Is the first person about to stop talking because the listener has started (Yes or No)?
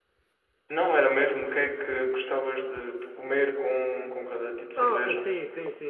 Yes